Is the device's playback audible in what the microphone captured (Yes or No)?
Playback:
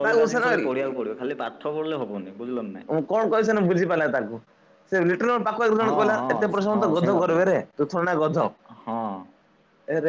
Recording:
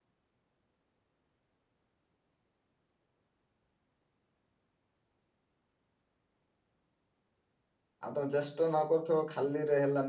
No